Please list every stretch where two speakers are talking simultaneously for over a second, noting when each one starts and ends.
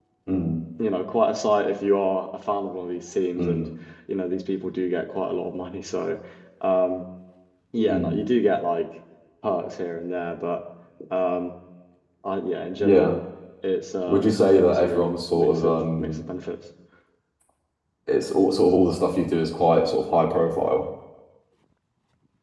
14.1-16.2

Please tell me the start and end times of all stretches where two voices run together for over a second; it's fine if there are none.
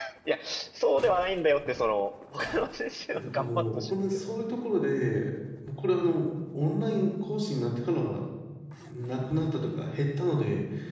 3.1-4.3

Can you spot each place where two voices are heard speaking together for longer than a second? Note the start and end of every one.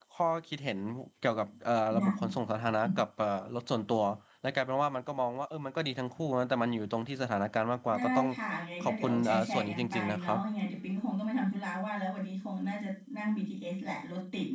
8.8-10.4

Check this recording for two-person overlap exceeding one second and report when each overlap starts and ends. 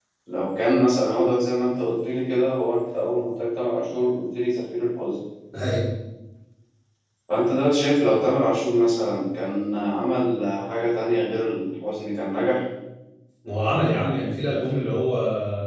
none

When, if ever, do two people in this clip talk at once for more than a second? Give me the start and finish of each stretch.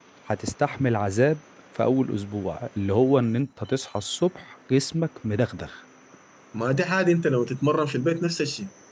none

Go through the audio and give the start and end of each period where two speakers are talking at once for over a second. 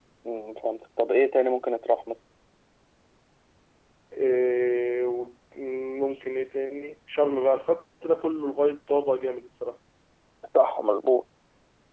none

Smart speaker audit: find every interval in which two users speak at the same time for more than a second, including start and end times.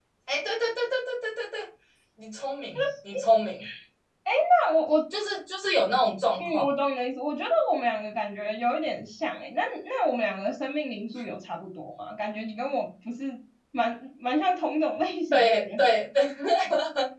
none

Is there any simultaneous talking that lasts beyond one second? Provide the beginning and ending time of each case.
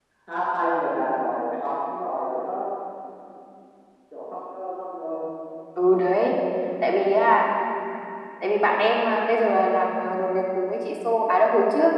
none

